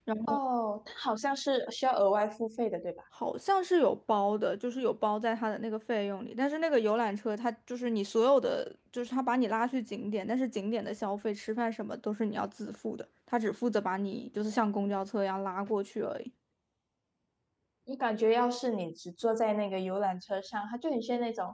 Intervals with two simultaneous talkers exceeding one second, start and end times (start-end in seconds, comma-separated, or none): none